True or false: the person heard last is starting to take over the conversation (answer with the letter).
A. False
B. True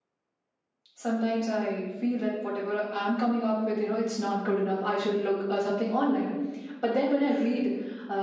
A